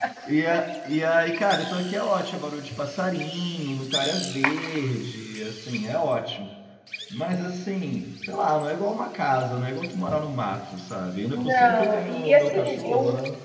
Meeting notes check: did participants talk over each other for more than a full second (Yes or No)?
Yes